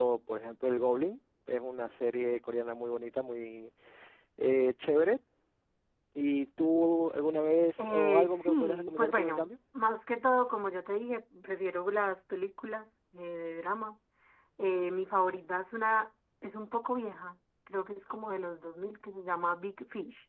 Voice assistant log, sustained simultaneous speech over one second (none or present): present